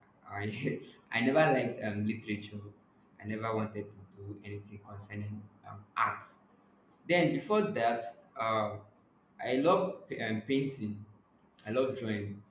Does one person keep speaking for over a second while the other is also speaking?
No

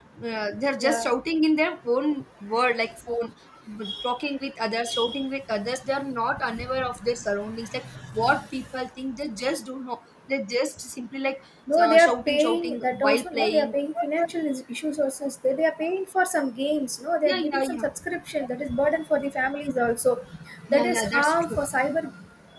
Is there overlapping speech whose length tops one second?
Yes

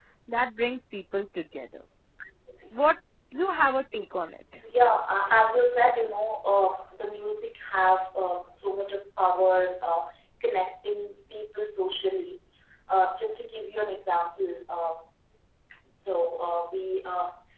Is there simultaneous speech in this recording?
No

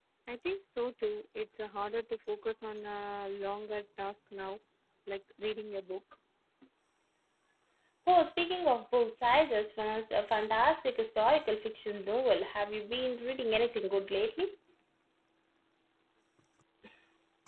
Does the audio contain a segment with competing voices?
No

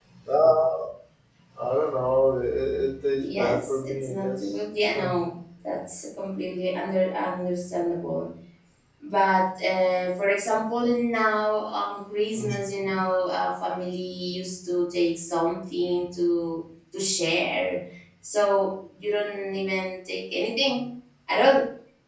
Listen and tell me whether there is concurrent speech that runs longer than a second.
Yes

